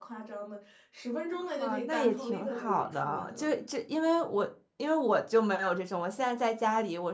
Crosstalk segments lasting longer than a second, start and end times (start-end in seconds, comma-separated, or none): 1.3-3.5